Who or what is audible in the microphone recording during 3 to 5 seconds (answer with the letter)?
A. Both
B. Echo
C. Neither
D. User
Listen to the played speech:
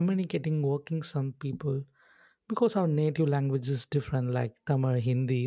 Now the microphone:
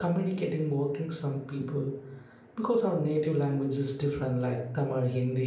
B